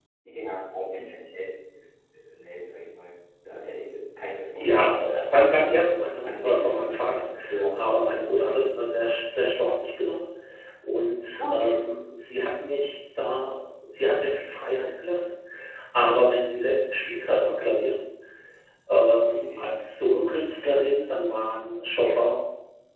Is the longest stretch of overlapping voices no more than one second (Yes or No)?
No